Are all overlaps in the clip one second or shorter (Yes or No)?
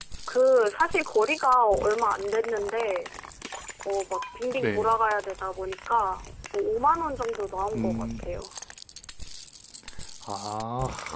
Yes